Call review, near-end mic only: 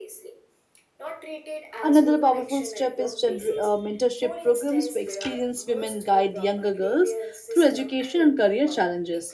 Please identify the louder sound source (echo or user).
user